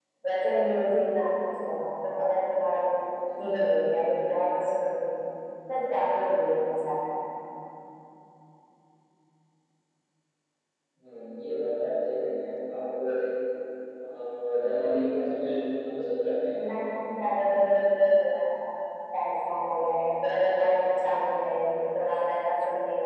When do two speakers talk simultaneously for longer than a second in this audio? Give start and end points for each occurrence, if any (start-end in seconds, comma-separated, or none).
none